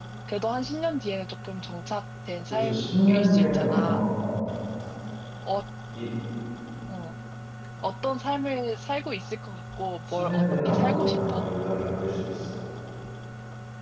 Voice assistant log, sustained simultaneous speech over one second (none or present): present